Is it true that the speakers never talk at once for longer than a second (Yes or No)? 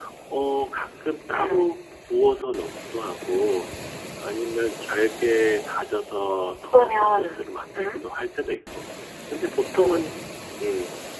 No